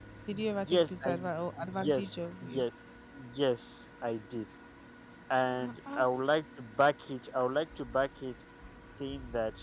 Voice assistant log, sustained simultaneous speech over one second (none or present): present